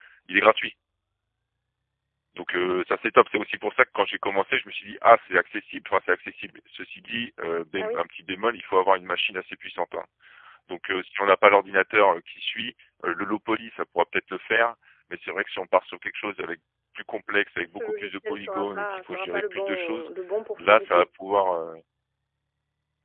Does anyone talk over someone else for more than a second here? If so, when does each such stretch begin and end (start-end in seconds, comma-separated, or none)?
17.7-20.1